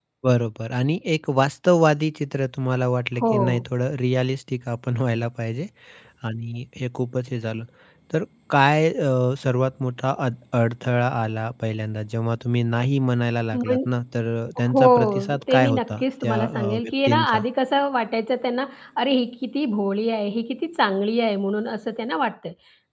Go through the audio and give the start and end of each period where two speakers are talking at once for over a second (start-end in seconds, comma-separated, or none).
14.6-17.4